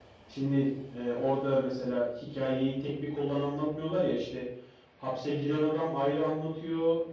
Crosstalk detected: No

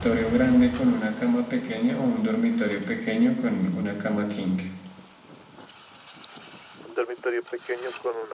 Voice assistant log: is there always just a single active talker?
Yes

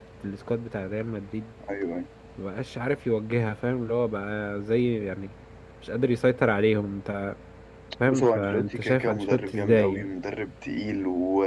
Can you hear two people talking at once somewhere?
Yes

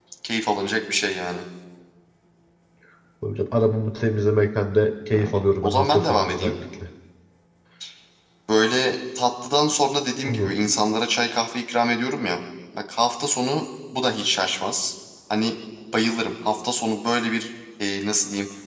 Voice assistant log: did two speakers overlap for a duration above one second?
Yes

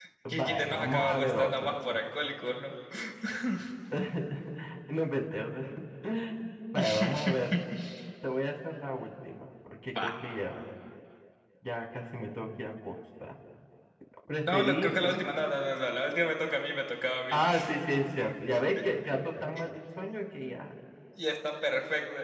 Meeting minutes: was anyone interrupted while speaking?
Yes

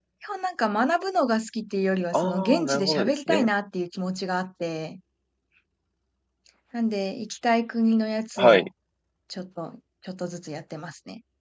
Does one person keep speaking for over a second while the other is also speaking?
Yes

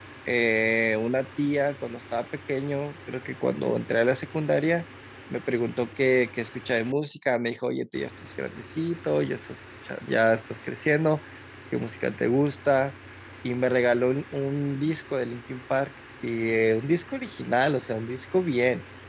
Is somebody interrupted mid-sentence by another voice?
No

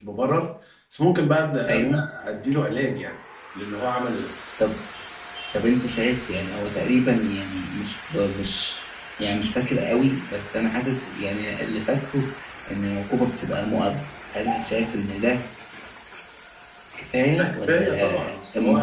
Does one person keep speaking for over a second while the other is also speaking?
Yes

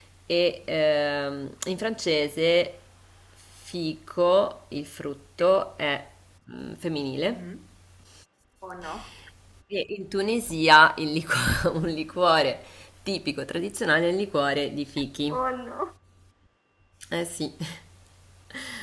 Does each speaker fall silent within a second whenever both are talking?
Yes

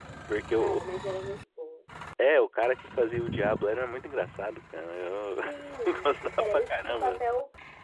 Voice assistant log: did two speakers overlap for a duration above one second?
Yes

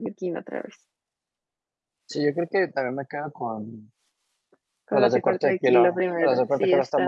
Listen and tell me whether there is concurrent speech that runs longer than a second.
Yes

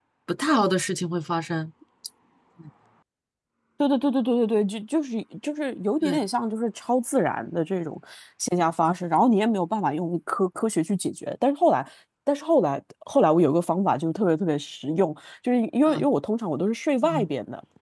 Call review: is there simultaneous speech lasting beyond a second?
No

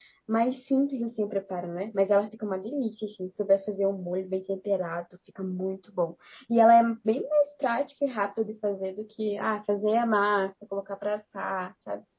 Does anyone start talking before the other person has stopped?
No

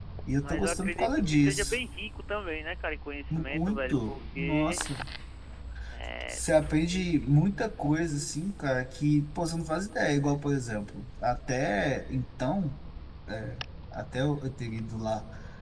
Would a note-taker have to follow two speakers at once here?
Yes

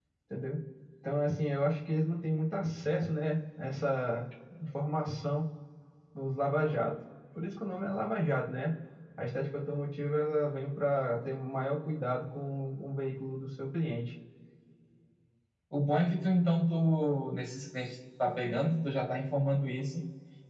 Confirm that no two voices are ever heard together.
Yes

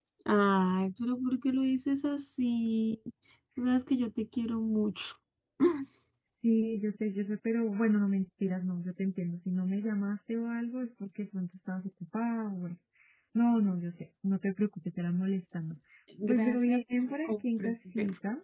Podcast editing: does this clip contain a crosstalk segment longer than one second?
Yes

